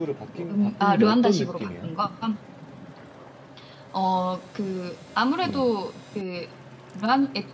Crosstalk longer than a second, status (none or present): present